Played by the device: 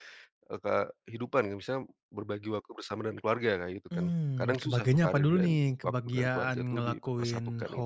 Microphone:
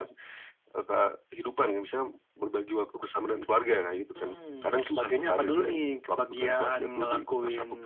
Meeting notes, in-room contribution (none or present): none